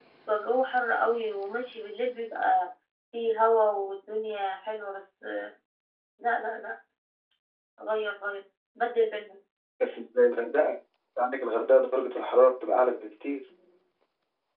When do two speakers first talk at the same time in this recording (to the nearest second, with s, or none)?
none